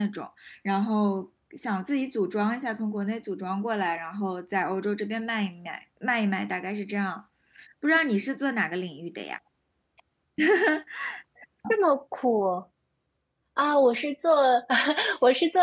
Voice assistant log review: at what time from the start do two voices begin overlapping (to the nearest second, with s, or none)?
none